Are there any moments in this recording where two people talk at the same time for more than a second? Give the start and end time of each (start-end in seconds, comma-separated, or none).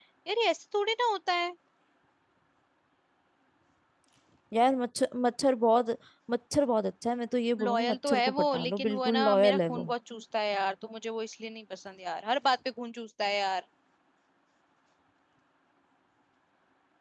7.6-9.9